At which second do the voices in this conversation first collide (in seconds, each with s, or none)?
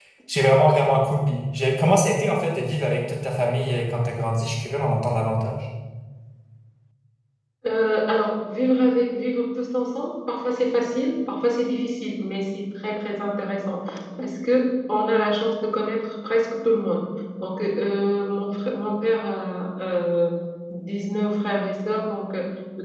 none